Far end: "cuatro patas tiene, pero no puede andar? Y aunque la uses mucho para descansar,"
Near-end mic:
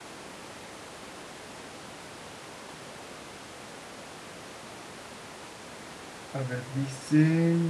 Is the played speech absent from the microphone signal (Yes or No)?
Yes